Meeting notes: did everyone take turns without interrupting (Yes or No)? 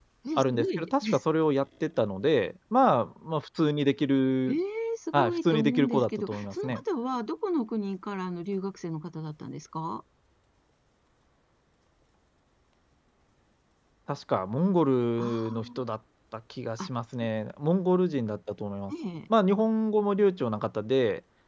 No